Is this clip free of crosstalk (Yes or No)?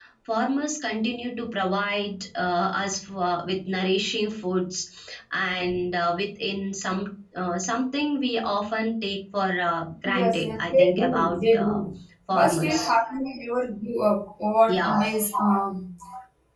No